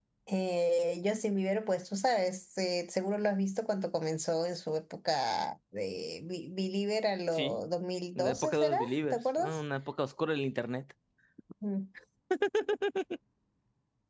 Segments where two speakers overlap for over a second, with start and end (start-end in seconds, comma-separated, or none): 8.2-9.6